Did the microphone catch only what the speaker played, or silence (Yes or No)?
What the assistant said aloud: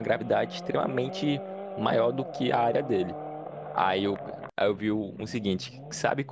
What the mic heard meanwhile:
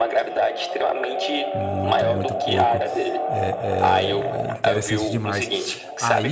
No